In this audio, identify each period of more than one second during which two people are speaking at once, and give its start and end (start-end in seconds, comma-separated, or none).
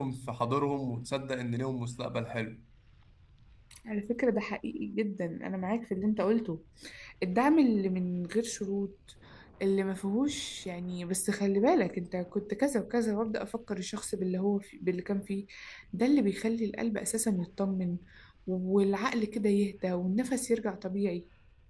none